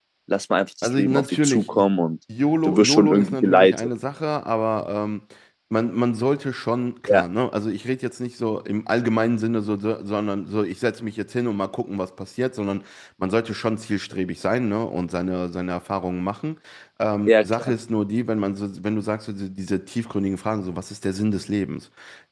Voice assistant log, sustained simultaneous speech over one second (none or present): present